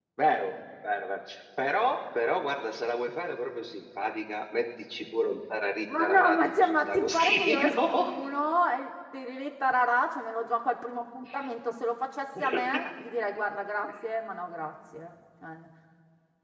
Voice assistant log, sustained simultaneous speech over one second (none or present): present